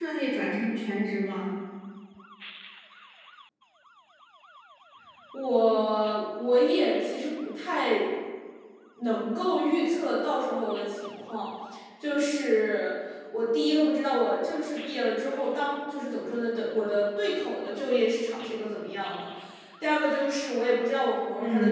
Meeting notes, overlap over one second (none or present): none